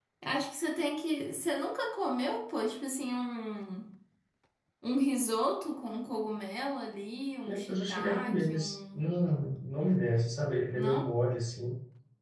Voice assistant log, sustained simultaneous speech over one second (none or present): present